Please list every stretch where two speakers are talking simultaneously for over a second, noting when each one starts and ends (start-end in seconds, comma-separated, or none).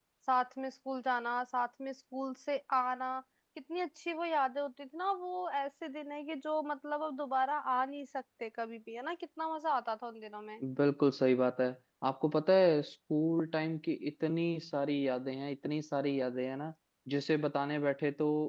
none